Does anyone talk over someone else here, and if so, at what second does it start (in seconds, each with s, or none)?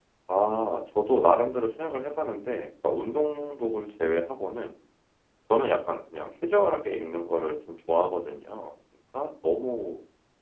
none